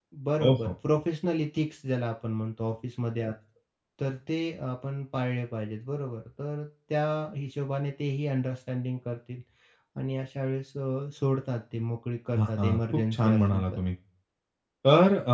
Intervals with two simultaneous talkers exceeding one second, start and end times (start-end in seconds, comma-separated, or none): 12.4-13.8